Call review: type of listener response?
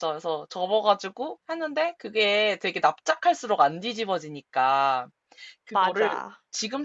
listening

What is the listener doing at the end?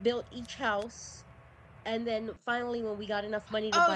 taking over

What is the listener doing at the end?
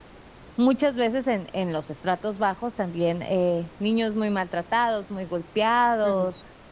listening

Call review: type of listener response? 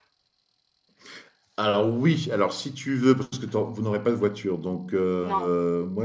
listening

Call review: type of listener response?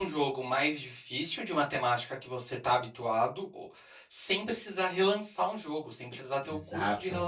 listening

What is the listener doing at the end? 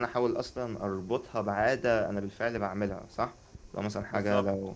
listening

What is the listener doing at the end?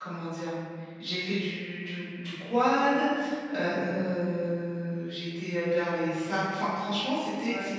listening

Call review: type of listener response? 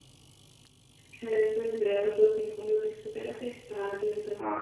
listening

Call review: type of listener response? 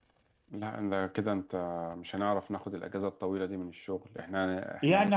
taking over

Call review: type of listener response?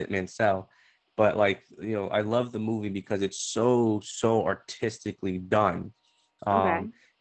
listening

